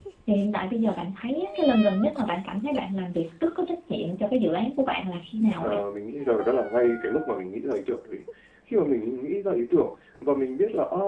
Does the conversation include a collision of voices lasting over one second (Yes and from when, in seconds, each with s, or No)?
No